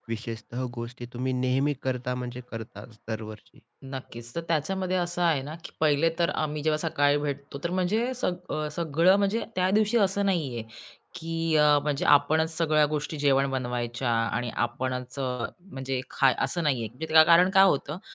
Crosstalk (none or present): none